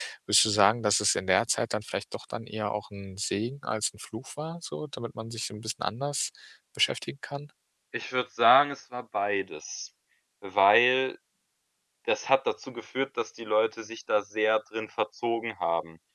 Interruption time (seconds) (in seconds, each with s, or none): none